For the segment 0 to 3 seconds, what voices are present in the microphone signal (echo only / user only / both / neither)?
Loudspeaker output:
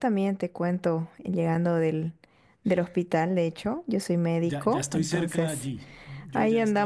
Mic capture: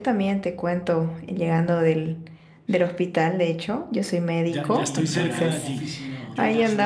echo only